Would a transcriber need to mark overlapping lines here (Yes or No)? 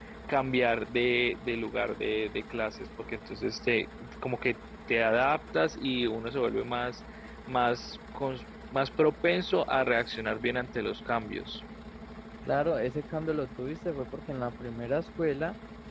No